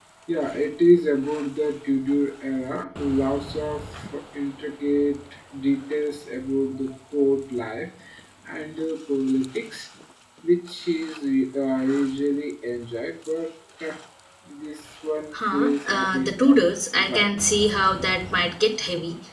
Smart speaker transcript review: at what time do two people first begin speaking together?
15.3 s

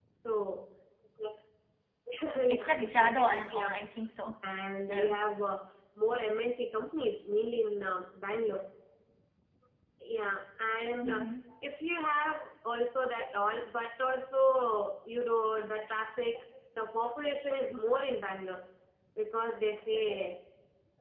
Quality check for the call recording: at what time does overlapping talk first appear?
2.5 s

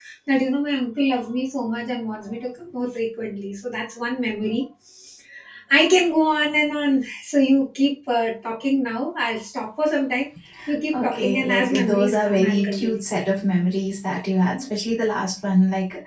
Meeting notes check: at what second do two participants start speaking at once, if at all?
10.9 s

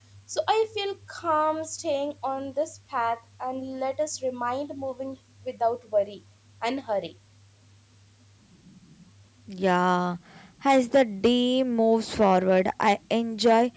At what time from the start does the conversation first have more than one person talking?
none

